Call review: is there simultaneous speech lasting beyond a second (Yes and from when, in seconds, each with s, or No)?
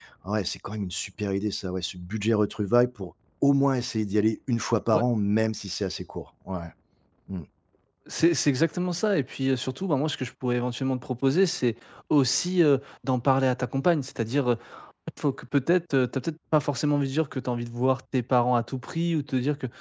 No